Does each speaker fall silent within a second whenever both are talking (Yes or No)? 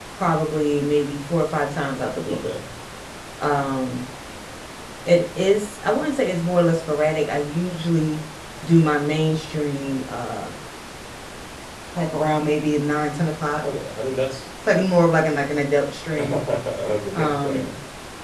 Yes